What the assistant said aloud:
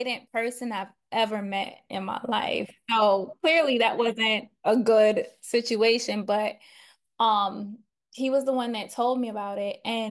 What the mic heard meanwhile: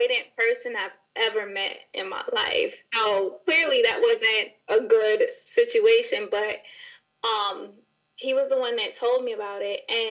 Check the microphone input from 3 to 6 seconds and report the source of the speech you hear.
echo only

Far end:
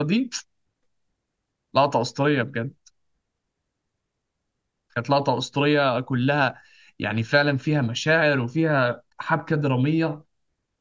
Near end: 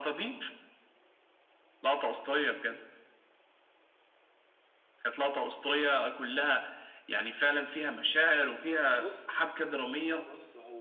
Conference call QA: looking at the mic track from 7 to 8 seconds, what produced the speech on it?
echo only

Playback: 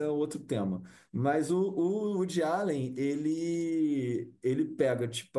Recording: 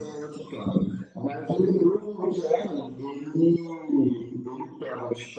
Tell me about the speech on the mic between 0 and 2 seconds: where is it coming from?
echo only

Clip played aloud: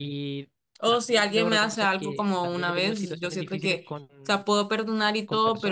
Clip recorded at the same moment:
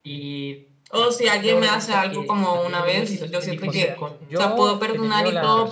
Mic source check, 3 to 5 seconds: both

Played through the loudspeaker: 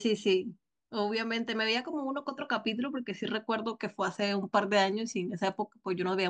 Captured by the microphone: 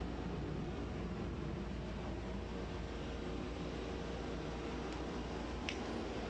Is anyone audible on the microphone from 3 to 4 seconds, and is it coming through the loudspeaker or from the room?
neither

